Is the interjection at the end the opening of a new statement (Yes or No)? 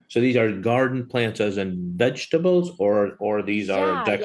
Yes